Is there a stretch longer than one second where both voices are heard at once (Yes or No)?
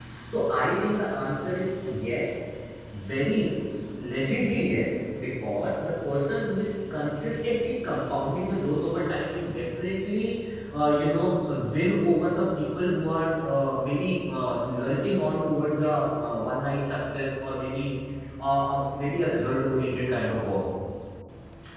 No